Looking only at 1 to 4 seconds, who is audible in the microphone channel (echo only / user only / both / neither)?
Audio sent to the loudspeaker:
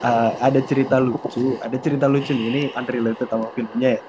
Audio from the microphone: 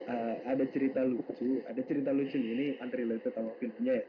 echo only